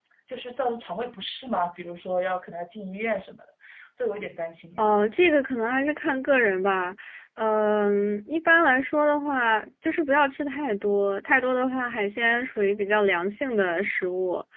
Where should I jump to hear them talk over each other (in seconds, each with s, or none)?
none